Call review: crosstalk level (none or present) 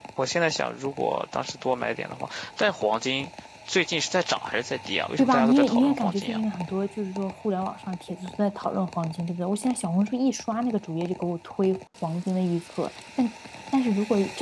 present